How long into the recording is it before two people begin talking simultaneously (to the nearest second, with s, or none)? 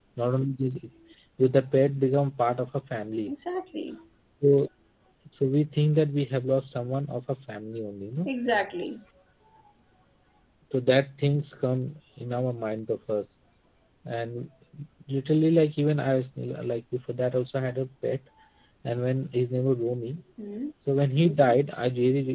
none